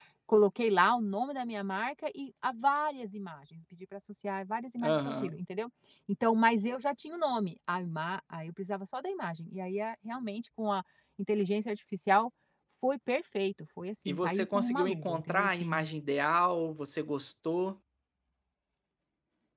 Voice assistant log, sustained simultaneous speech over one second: present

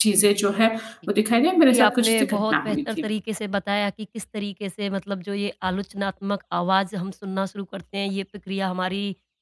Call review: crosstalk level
present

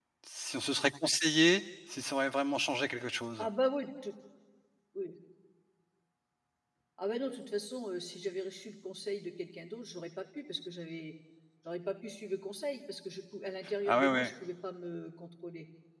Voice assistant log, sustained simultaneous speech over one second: none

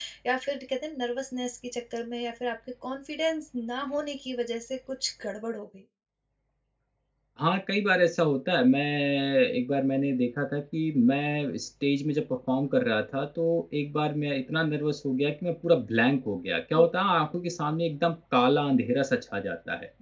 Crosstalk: none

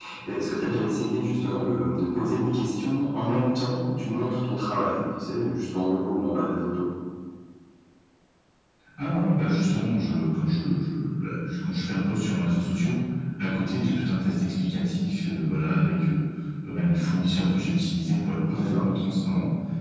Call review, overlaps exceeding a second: none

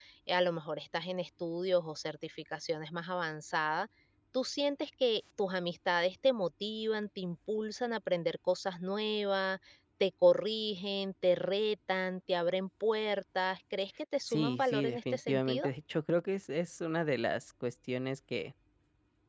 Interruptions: present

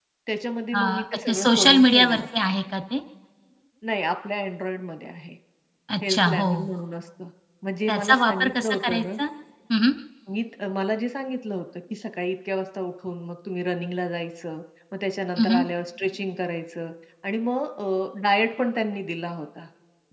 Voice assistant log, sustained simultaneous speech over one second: present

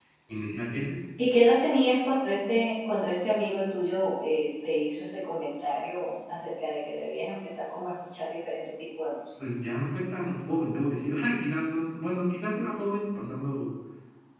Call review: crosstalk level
none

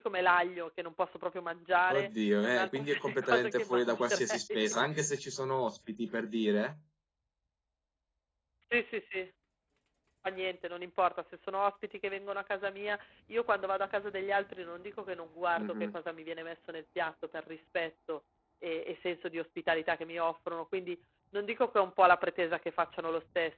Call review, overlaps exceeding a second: present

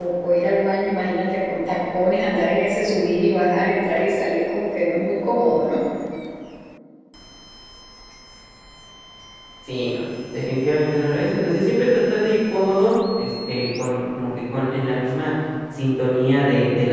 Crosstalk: none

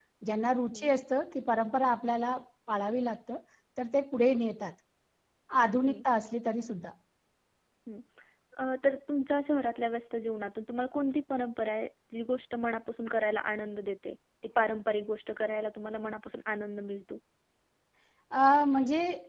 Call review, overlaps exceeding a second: none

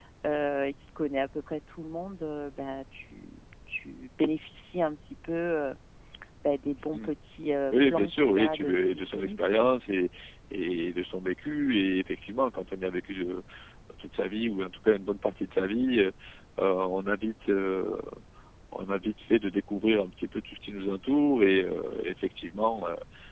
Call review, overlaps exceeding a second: present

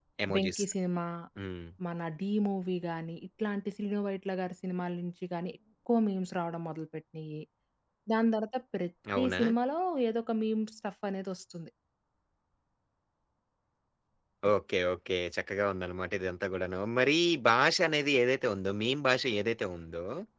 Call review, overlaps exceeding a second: none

